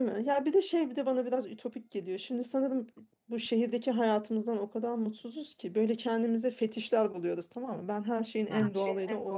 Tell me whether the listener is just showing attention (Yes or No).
Yes